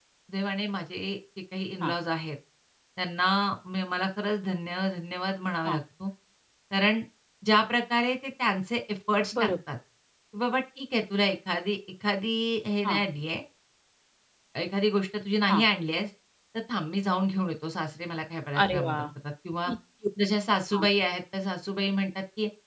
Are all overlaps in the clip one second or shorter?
Yes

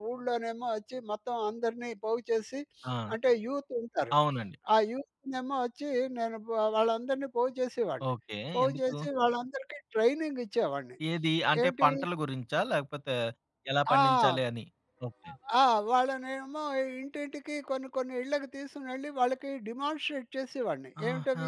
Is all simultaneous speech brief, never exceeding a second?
Yes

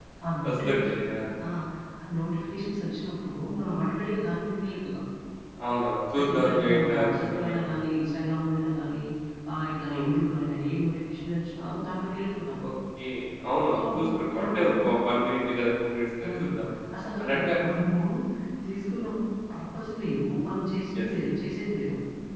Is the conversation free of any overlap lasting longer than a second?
No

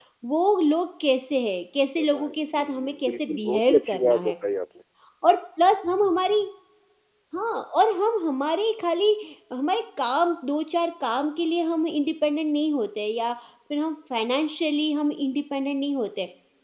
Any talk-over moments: Yes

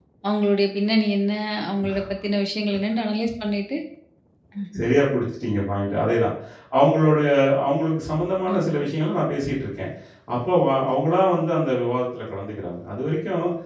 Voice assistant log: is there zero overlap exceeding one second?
Yes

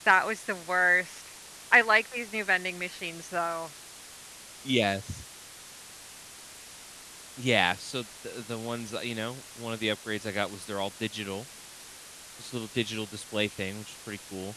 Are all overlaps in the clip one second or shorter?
Yes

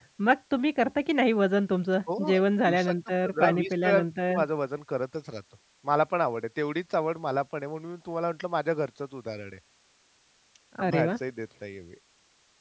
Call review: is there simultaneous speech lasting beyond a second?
Yes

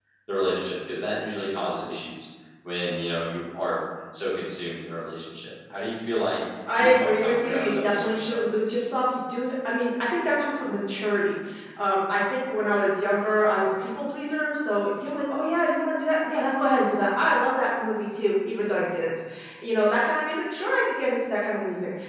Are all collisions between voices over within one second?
No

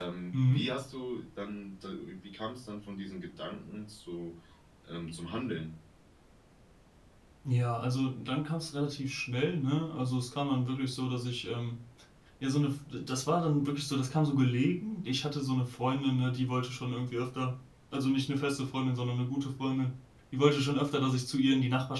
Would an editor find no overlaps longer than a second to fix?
Yes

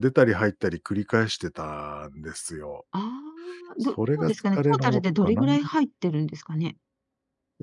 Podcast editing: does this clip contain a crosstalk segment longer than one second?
Yes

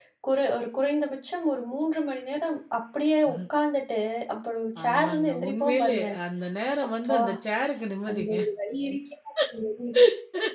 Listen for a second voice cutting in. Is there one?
Yes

